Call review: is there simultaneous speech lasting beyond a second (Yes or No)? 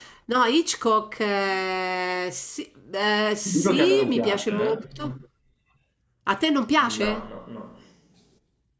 Yes